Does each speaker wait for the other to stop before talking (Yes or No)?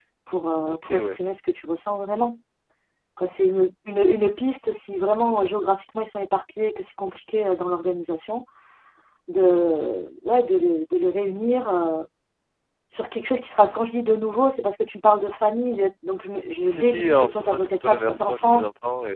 No